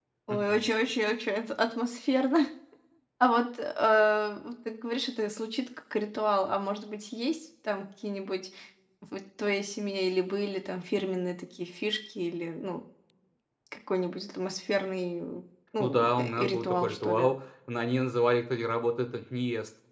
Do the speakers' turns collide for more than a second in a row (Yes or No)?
Yes